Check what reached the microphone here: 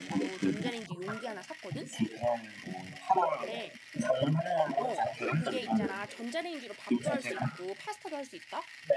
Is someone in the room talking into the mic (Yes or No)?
Yes